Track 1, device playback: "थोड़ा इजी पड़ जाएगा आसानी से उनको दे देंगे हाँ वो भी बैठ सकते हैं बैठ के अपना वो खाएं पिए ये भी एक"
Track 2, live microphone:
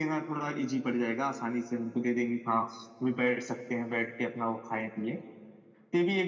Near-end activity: none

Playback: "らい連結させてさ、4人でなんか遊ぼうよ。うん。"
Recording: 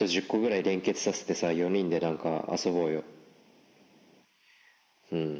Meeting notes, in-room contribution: none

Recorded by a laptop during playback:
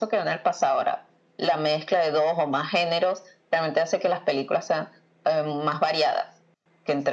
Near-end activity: none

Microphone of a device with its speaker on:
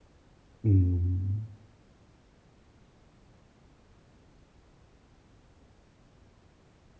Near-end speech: present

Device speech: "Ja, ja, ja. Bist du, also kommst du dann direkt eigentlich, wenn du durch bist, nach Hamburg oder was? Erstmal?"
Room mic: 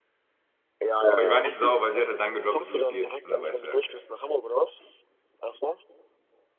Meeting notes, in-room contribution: present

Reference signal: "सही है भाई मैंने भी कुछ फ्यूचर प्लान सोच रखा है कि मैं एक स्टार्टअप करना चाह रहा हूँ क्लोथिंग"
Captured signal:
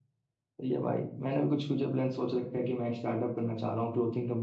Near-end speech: none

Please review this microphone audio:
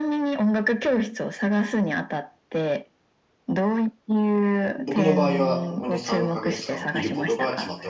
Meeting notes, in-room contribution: present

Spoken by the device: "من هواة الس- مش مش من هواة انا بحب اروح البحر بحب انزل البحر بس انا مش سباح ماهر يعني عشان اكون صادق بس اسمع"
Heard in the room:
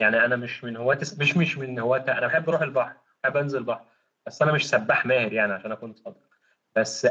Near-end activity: none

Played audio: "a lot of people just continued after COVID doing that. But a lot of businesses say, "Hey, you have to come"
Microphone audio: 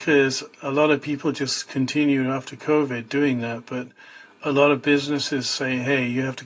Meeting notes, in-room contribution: none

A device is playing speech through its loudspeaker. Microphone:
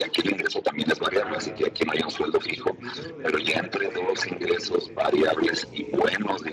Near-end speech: present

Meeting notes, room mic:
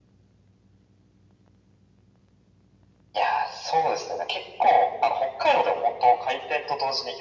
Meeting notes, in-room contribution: none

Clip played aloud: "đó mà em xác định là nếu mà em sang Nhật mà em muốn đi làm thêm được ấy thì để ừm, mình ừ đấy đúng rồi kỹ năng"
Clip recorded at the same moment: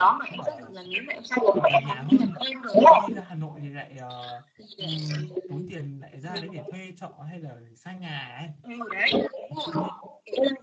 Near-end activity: present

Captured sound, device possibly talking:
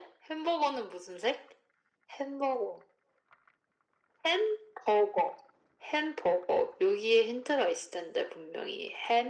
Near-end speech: none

